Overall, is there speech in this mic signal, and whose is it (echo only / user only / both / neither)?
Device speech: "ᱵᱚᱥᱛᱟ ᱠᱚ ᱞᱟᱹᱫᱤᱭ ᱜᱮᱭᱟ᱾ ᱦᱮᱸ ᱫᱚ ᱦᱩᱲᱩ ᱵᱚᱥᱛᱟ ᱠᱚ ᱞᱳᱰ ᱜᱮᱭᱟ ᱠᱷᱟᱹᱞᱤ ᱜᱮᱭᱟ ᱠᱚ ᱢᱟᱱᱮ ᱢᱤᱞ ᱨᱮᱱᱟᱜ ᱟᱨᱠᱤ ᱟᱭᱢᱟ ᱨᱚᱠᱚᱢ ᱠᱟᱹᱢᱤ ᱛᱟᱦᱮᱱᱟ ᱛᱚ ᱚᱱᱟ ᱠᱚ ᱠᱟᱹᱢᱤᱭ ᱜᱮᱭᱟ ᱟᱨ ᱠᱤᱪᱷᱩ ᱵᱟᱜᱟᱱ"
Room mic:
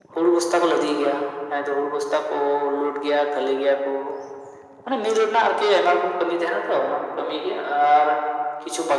echo only